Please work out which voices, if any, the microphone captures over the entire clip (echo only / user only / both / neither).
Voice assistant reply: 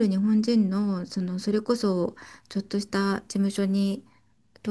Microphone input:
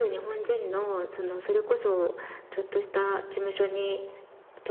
echo only